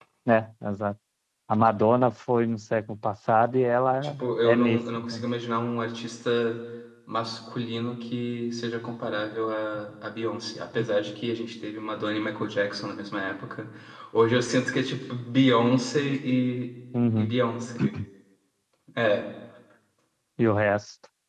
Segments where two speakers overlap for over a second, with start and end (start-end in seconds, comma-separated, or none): 4.0-5.2